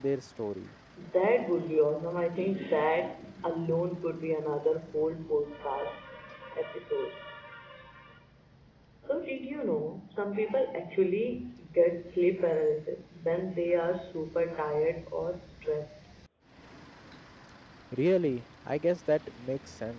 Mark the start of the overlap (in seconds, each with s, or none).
none